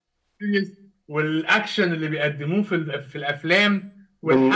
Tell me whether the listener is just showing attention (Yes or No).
Yes